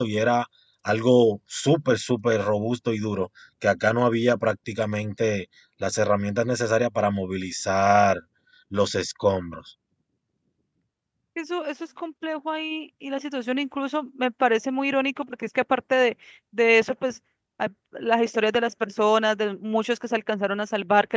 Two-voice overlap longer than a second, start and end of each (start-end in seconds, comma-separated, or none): none